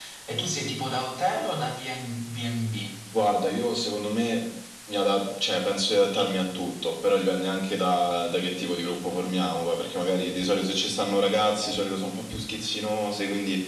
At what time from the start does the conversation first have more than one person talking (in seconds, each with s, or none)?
none